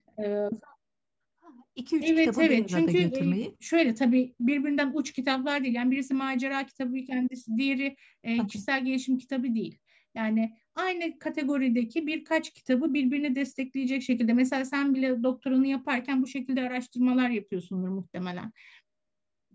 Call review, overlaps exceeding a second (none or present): present